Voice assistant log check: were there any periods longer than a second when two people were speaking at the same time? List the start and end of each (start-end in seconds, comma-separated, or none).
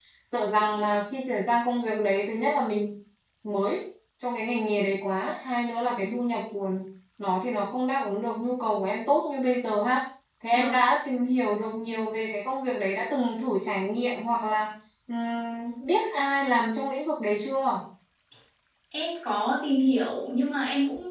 none